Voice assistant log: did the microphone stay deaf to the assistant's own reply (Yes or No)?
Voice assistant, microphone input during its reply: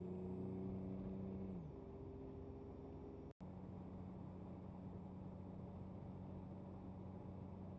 Yes